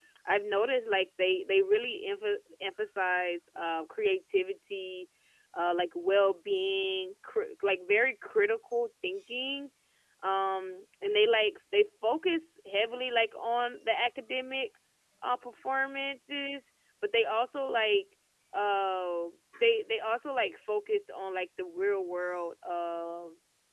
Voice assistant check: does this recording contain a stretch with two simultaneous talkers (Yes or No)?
No